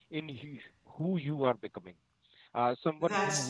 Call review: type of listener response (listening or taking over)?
listening